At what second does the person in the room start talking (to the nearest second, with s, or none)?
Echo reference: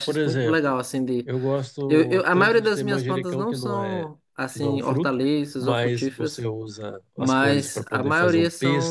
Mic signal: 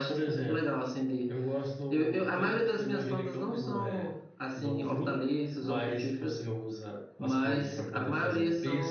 none